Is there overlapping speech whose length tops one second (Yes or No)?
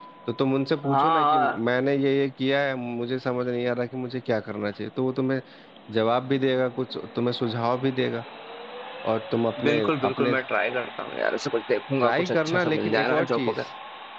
Yes